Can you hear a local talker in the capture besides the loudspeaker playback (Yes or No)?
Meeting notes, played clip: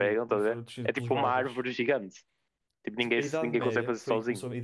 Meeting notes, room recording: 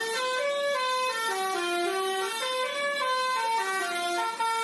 No